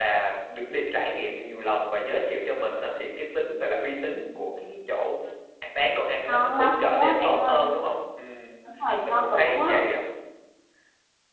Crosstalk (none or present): present